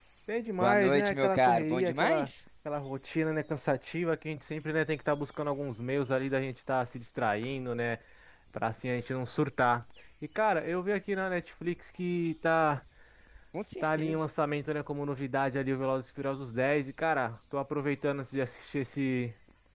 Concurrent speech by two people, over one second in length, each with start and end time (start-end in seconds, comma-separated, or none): 0.6-2.3